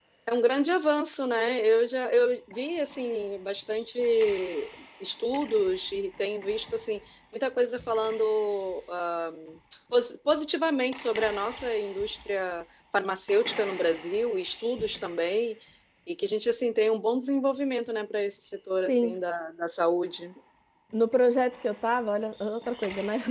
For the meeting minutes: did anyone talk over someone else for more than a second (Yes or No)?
No